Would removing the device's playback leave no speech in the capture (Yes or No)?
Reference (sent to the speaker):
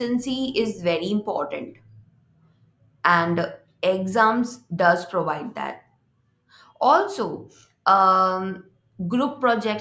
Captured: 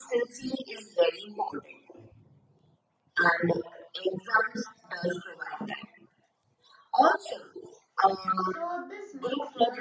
No